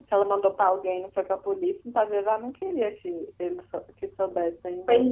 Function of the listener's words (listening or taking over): taking over